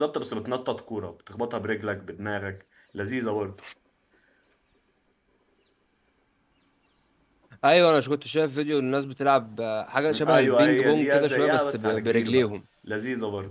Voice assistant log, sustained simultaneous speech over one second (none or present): present